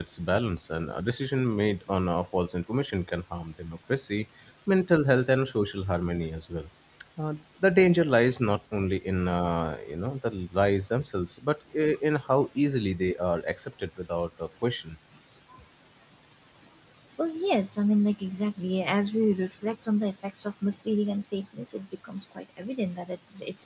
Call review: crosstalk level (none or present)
none